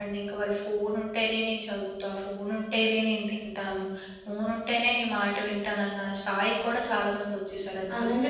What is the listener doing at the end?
taking over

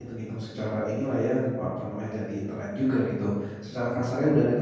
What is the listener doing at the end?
listening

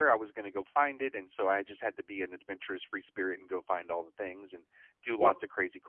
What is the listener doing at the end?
listening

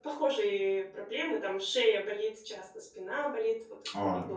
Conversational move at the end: listening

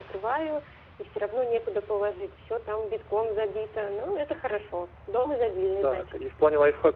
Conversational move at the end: taking over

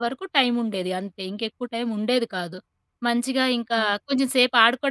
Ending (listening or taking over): listening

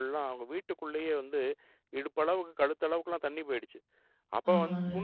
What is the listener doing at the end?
listening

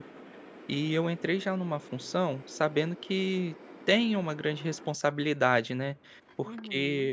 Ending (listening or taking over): taking over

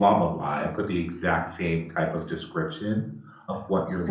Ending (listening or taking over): taking over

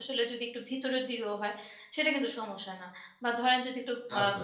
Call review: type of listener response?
listening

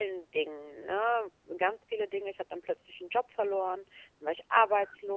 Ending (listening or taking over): listening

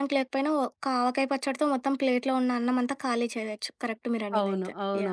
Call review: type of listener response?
taking over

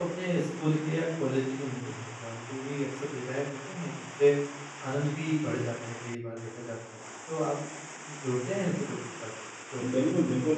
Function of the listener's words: taking over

